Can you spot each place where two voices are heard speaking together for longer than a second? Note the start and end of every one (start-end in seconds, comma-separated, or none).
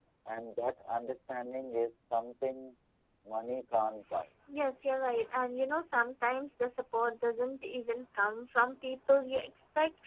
none